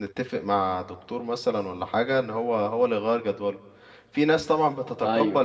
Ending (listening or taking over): listening